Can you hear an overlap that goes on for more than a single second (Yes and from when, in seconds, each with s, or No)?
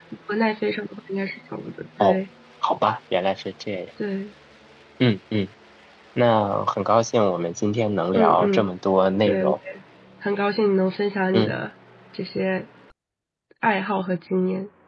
No